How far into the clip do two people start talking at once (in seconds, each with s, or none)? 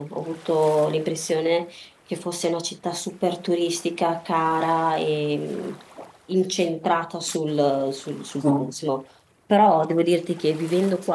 none